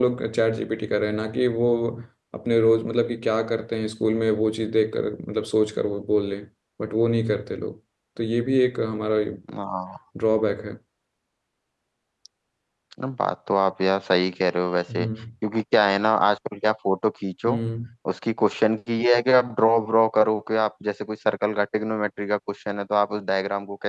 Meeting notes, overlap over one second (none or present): none